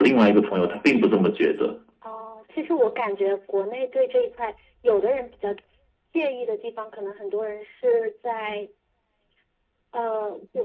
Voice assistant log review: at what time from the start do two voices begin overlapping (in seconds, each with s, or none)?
none